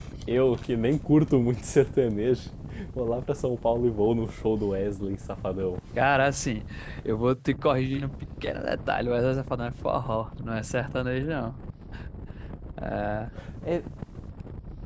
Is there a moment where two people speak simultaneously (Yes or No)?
No